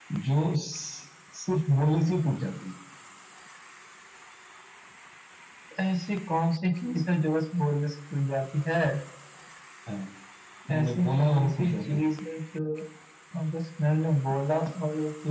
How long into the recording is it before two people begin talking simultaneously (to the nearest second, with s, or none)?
11 s